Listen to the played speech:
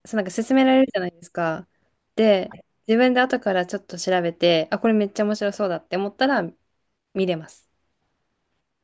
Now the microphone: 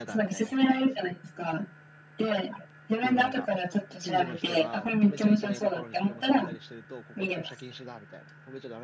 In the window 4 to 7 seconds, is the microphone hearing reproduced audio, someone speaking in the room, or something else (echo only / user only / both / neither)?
both